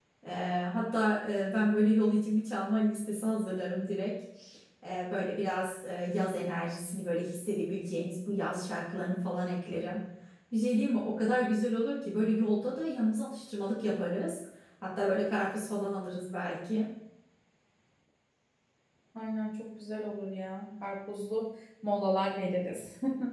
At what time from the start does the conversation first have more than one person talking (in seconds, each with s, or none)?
none